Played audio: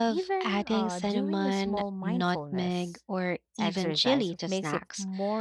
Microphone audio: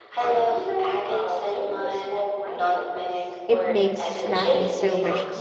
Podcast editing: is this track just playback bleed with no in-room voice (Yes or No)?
No